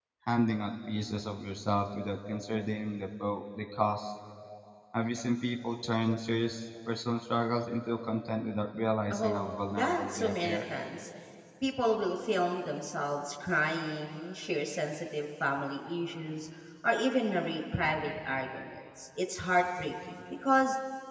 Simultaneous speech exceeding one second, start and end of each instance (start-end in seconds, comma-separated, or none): 9.1-10.6